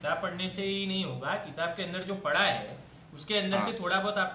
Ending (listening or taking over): listening